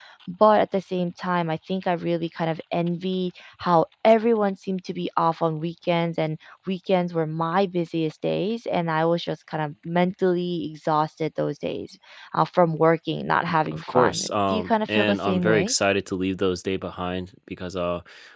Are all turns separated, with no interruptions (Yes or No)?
No